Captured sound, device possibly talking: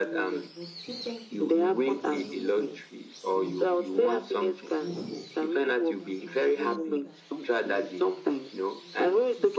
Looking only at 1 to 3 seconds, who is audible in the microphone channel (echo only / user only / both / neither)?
both